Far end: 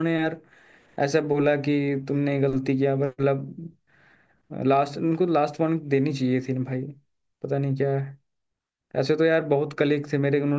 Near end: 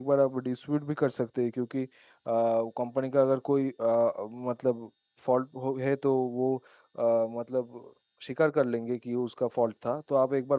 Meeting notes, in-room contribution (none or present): present